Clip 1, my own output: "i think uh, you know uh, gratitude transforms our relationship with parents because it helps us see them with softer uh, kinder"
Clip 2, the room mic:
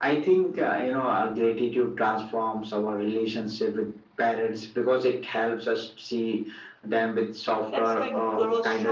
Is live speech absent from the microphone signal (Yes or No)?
No